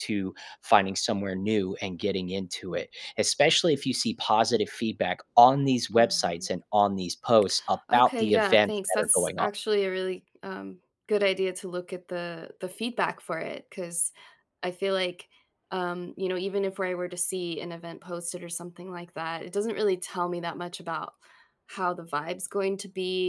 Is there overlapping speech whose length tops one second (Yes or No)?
Yes